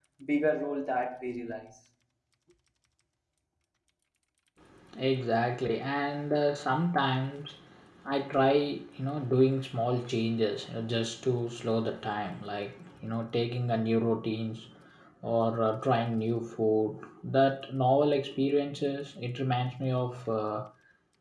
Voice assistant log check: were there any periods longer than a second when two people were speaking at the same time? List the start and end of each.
none

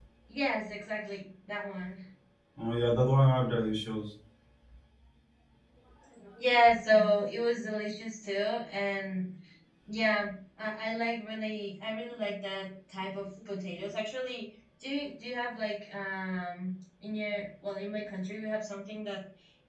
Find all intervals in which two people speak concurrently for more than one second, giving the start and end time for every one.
none

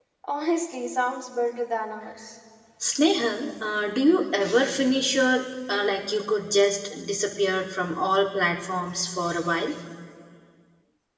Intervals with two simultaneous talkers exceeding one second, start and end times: none

